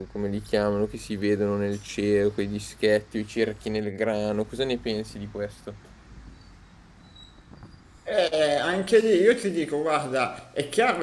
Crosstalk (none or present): none